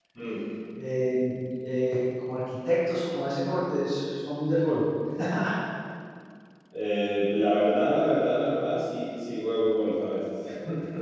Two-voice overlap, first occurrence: none

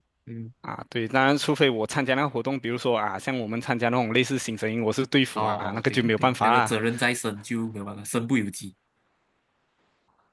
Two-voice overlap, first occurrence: 5.4 s

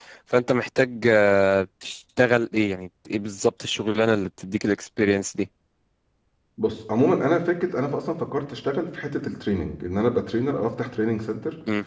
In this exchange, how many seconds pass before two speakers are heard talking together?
none

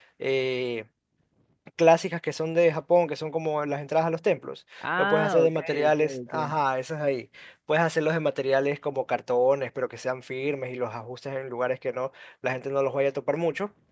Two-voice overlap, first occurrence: 4.8 s

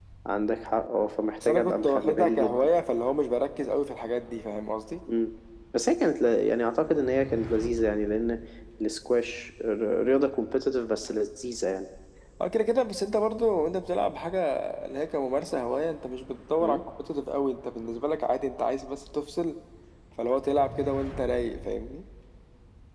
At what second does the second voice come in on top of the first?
1.4 s

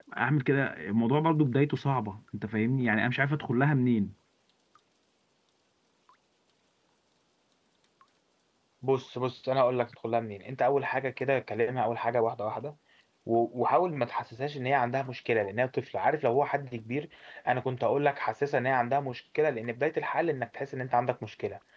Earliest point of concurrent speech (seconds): none

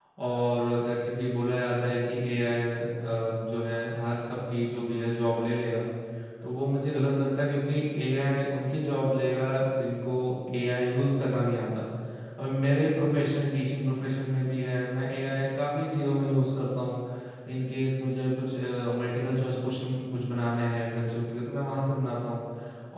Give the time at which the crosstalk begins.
none

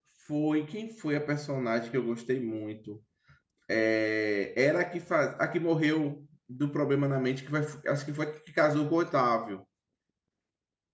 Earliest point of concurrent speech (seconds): none

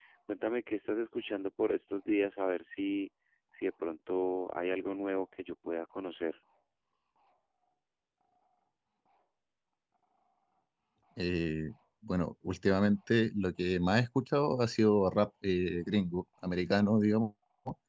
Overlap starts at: none

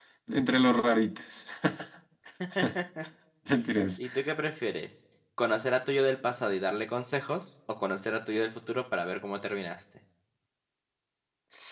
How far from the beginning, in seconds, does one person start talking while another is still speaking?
none

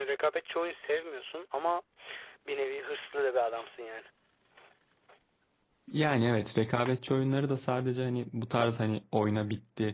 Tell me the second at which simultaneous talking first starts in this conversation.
none

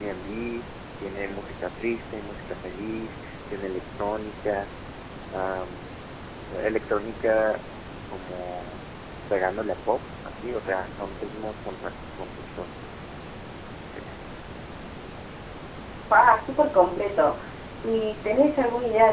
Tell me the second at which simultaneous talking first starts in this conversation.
none

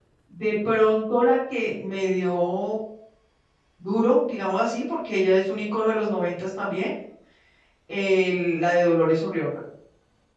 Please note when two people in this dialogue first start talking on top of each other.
none

